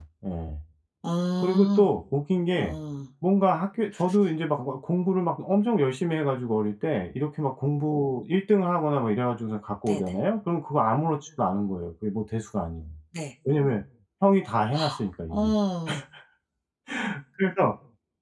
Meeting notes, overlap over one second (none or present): none